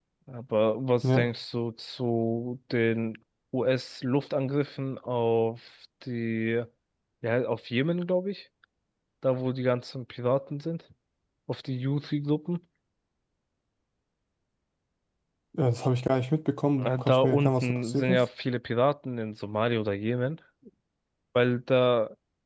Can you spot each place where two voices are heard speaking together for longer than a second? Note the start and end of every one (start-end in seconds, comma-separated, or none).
16.8-18.2